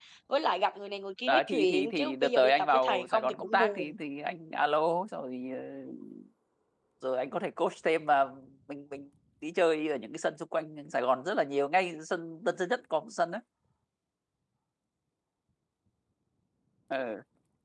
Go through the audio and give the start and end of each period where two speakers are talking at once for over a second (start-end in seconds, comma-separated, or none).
1.3-3.9